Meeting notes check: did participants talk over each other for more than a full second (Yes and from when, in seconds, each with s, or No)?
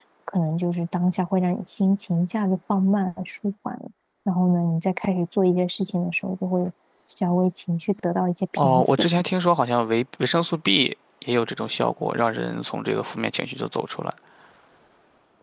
No